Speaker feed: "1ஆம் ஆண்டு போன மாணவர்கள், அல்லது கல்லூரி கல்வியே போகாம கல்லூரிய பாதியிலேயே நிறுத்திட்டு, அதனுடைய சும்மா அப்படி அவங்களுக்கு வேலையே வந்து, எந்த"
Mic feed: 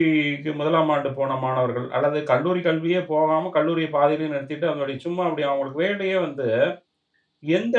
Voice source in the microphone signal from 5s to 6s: echo only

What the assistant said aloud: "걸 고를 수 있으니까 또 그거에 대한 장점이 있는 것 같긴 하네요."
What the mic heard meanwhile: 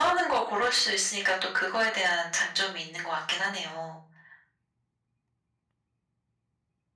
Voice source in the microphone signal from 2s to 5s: echo only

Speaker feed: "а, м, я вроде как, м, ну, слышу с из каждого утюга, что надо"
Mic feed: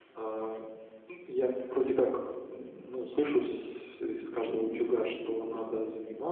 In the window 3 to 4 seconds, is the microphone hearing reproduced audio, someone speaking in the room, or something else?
echo only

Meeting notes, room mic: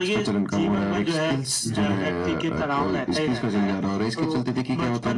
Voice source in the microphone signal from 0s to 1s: echo only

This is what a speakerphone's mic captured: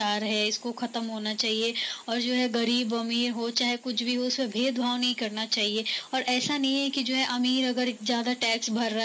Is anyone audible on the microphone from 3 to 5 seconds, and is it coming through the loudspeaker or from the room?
echo only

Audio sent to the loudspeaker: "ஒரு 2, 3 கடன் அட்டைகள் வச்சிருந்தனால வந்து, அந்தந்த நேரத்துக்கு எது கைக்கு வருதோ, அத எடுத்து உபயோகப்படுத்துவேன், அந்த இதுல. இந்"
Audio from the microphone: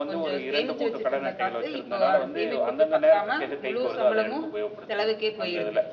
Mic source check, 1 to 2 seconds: both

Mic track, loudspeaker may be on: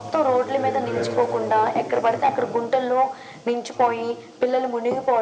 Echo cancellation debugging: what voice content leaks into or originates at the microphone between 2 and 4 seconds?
both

